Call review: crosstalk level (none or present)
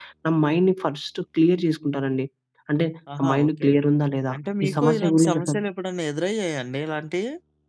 present